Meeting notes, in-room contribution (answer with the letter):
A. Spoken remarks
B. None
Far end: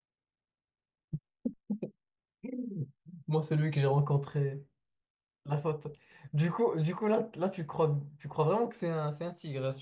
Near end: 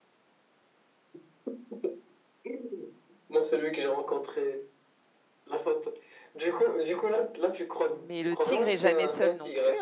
A